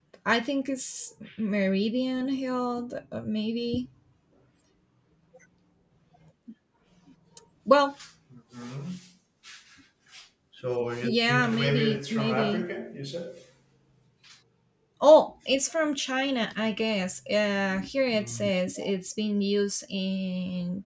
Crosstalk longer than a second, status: present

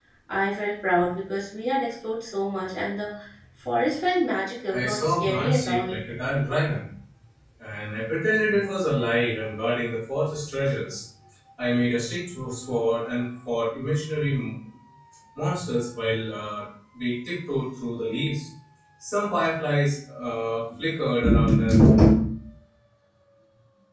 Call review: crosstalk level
present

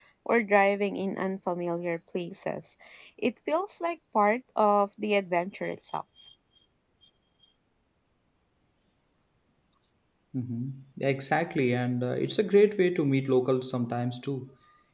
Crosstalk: none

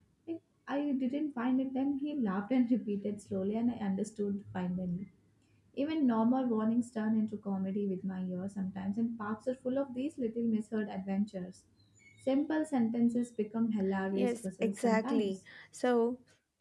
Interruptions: present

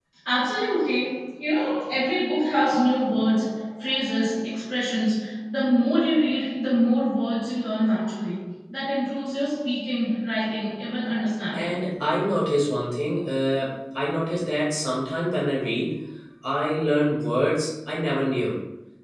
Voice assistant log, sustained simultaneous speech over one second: none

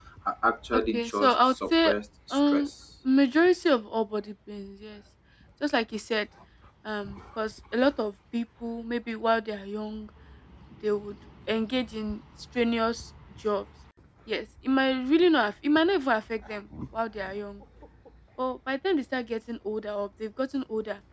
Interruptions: present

